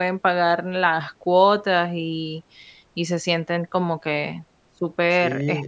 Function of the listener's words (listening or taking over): taking over